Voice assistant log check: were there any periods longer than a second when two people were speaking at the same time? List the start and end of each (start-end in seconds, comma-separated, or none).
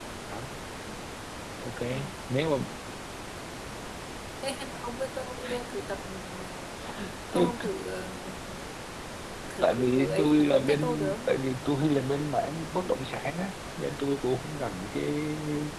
9.6-11.3